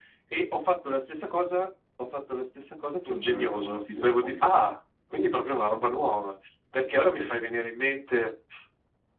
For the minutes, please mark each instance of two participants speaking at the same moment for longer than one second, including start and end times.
3.1-4.4

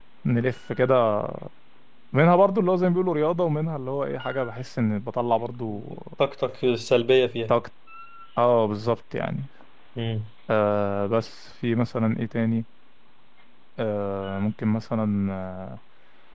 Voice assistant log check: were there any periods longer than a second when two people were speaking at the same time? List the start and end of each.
none

